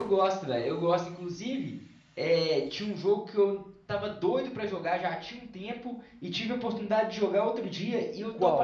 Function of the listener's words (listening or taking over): listening